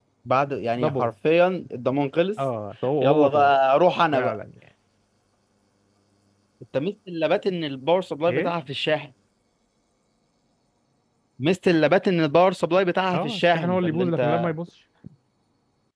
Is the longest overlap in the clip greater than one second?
Yes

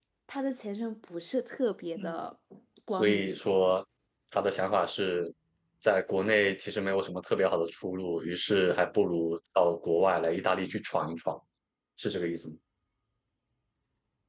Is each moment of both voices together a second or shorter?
Yes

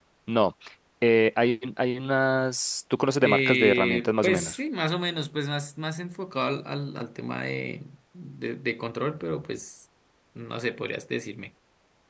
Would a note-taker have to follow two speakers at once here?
Yes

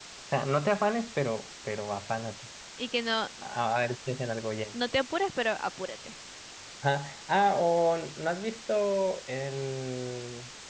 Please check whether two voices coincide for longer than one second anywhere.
No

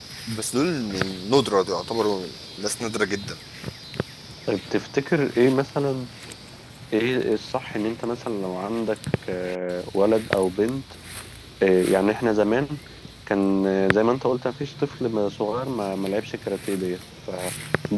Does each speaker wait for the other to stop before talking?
Yes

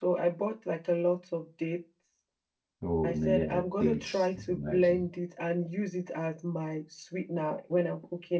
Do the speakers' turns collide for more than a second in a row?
Yes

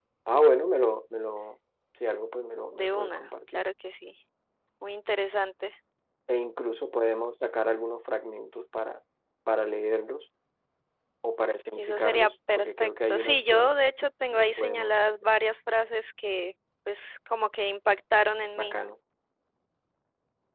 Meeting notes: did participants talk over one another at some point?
Yes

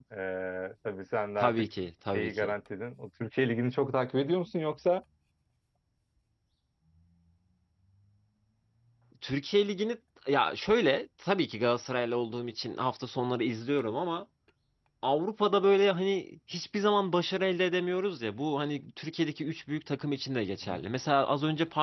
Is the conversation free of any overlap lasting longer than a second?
Yes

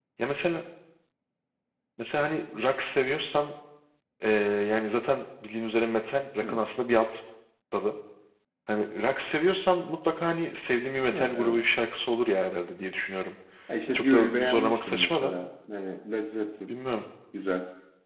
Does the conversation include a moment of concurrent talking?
Yes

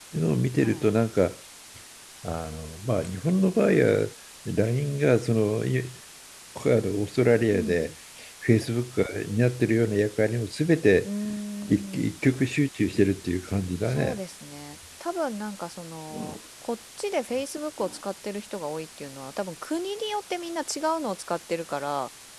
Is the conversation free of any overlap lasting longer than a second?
Yes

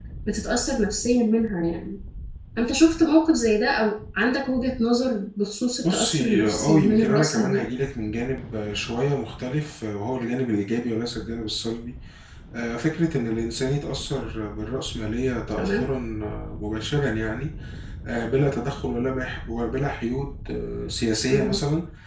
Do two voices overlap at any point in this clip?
Yes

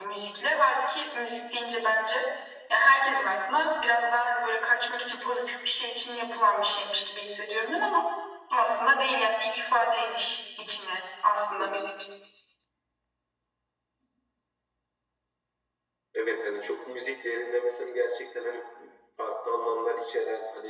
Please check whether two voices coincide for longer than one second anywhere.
No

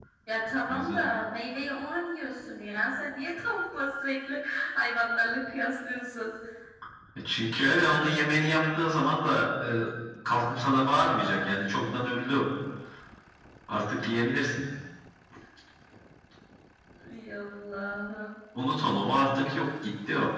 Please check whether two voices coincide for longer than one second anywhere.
No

